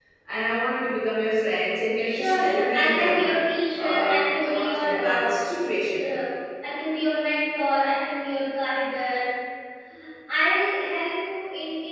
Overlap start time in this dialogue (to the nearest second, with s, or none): 2 s